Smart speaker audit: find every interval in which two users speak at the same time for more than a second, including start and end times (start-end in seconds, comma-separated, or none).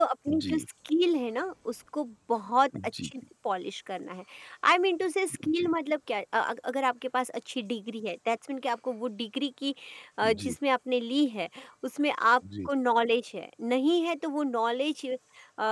none